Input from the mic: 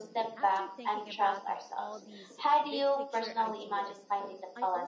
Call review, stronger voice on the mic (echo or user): echo